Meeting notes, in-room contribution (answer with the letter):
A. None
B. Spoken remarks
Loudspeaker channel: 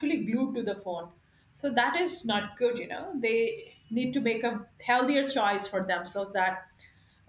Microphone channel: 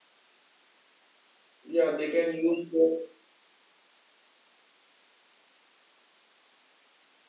B